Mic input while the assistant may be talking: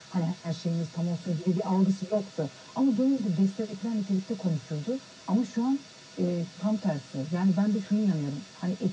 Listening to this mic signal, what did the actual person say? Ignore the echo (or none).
none